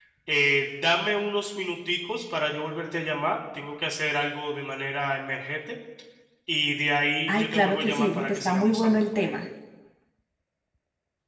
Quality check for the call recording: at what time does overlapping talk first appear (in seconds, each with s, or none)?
7.3 s